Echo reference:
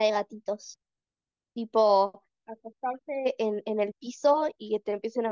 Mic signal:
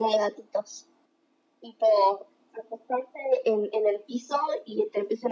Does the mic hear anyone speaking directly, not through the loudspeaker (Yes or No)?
No